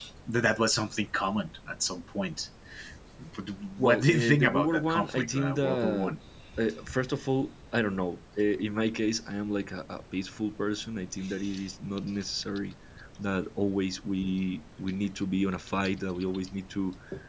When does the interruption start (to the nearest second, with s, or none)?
4 s